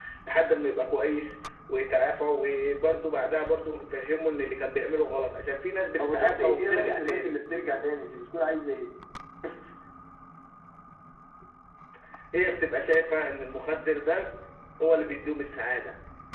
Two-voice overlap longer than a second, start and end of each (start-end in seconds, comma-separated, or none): 6.0-7.4